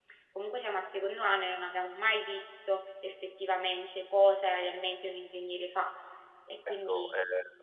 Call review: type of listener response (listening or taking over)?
taking over